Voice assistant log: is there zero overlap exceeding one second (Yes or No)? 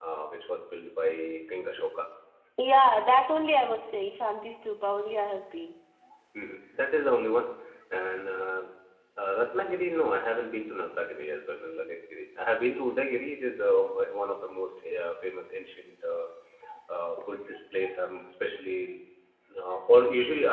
Yes